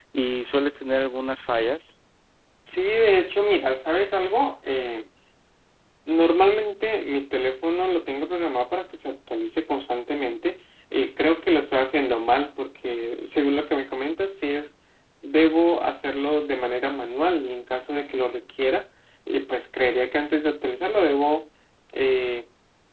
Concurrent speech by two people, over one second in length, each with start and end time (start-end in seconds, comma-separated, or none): none